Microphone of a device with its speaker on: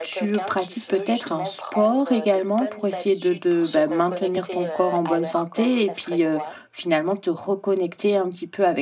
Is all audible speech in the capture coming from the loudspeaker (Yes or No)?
No